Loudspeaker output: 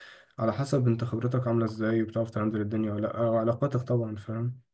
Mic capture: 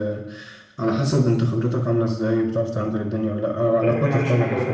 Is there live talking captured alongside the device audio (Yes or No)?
Yes